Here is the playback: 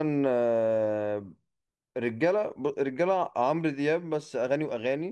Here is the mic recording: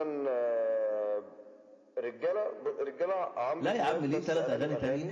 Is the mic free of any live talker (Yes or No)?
No